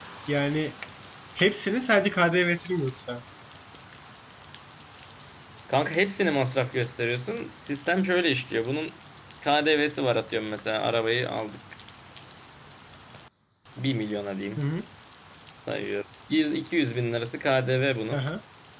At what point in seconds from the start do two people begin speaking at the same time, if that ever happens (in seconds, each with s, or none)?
none